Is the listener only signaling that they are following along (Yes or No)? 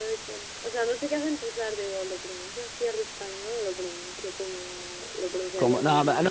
No